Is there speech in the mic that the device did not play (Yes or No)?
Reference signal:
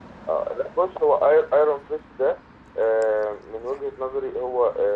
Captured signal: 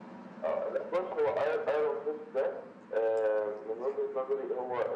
No